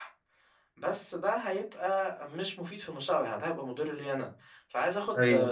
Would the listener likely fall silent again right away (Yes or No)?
Yes